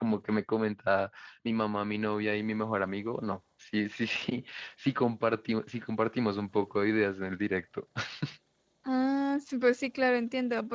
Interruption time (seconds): none

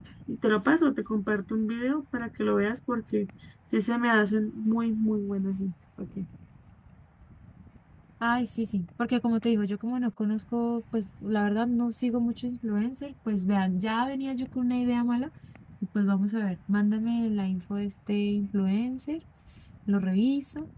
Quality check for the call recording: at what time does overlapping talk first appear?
none

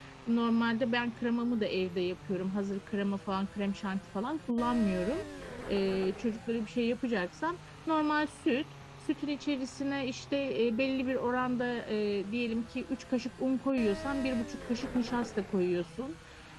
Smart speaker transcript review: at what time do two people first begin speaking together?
none

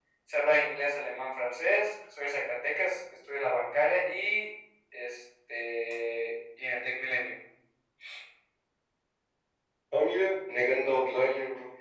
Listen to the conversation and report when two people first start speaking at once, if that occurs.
none

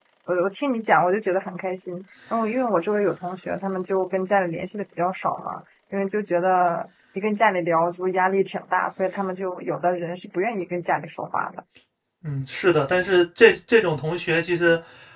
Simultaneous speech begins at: none

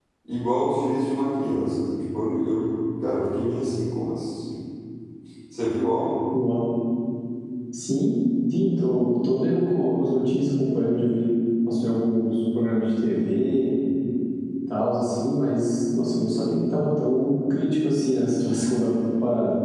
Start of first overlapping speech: none

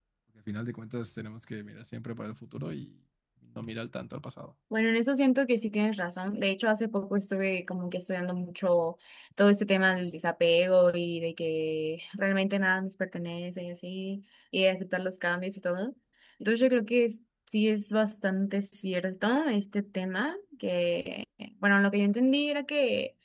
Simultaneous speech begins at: none

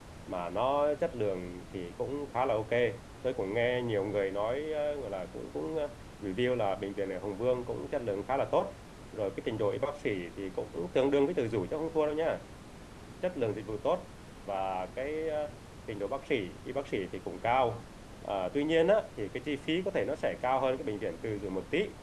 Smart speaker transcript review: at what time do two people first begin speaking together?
none

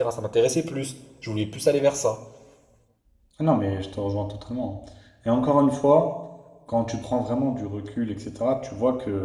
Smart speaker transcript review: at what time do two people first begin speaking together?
none

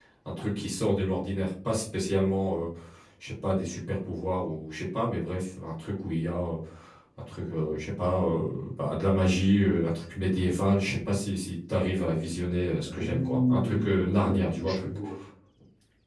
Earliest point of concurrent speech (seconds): 12.8 s

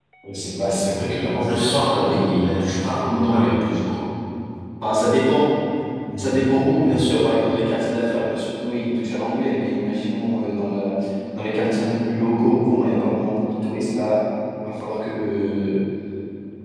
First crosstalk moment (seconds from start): 1.4 s

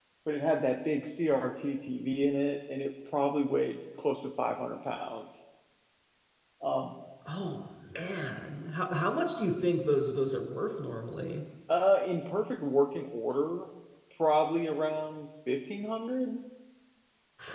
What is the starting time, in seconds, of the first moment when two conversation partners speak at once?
none

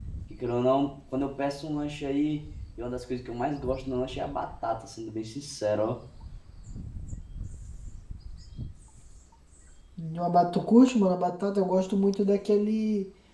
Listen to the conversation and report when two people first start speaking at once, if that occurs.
none

